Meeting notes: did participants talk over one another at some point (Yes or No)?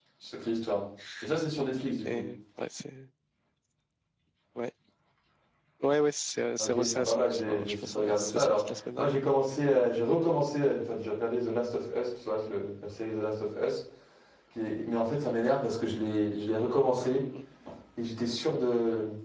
Yes